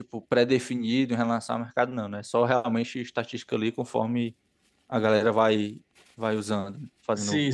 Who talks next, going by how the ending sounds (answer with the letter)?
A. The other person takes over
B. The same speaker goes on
A